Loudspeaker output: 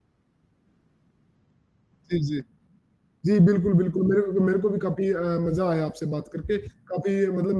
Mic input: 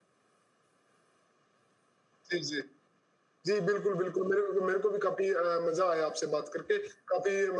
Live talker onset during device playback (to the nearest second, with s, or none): none